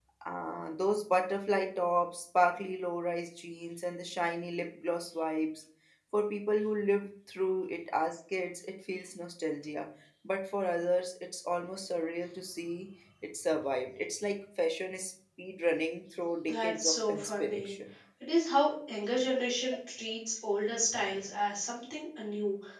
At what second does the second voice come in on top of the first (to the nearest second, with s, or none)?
16 s